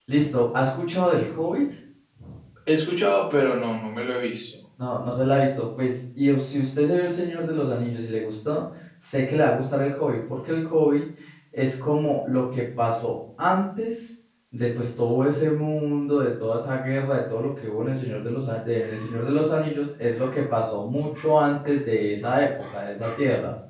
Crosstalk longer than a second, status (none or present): none